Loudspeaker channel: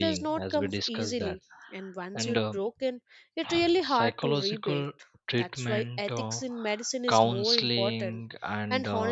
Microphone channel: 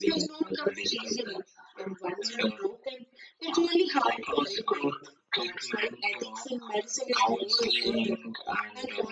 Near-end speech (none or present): none